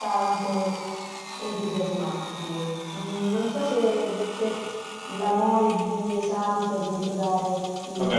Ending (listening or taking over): taking over